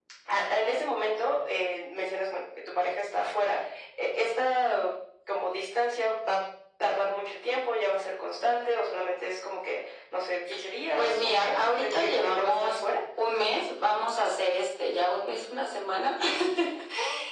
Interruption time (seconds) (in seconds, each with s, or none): 11.0 s